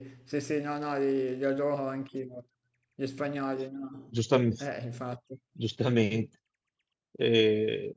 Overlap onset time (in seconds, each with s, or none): none